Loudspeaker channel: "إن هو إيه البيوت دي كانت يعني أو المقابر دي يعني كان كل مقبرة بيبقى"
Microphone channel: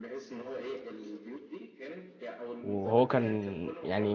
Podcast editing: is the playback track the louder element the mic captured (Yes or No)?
No